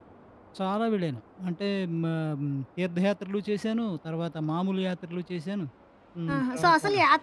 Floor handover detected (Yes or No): Yes